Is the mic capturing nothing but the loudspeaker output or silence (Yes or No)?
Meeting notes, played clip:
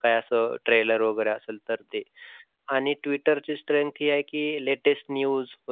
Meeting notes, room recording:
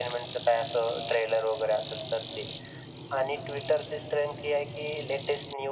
Yes